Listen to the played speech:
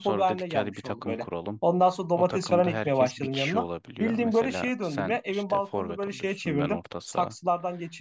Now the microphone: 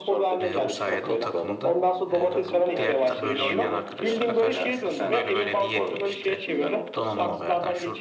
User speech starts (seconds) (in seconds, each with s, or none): 0.4 s